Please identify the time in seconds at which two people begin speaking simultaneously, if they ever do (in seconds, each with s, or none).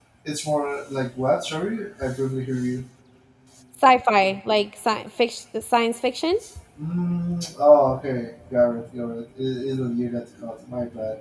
none